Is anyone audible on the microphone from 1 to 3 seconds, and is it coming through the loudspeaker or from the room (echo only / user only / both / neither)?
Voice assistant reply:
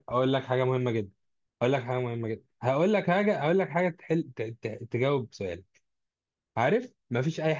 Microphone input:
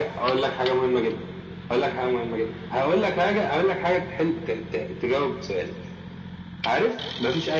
echo only